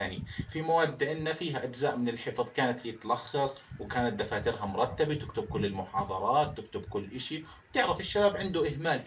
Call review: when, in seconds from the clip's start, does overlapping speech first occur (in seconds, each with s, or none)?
none